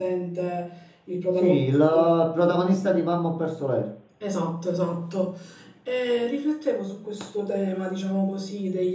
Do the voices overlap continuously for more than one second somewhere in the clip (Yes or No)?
No